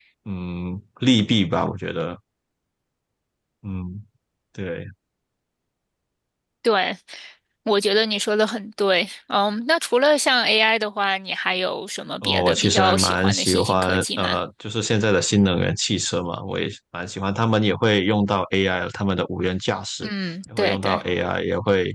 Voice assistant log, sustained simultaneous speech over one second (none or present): present